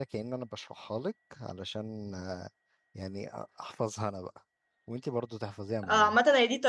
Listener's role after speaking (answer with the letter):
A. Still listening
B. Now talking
B